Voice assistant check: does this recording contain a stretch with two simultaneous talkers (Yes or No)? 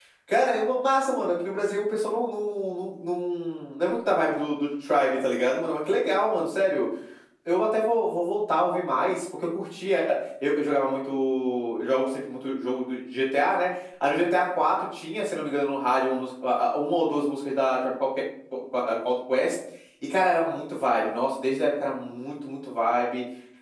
No